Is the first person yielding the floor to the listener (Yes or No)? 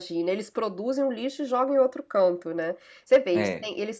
No